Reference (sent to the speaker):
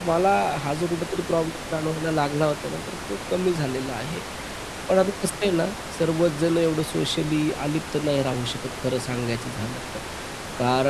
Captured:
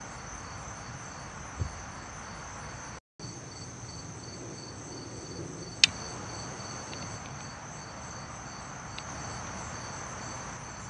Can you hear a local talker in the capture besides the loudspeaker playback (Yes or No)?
No